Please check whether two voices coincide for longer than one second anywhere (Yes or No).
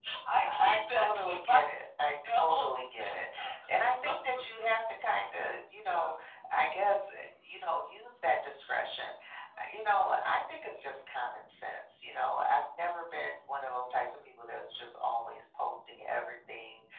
Yes